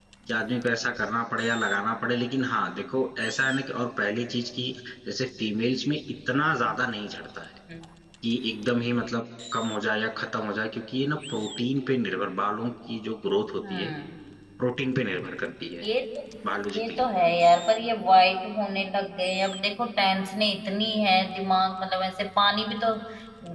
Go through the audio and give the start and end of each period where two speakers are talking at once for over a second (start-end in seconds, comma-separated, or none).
none